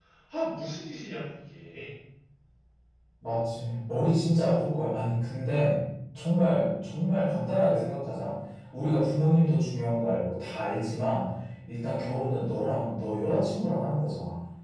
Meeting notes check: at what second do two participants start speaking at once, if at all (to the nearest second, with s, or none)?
none